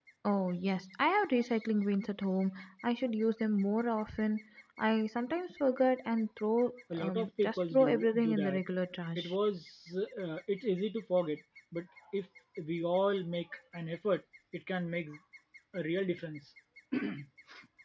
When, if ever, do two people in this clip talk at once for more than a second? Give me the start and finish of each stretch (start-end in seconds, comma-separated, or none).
7.0-8.6